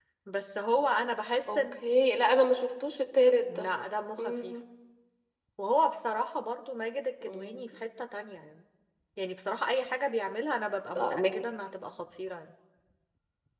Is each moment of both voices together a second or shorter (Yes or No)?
Yes